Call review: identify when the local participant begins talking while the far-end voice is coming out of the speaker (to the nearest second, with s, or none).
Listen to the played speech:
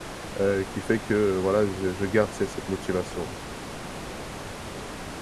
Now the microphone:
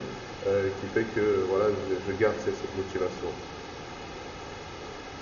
none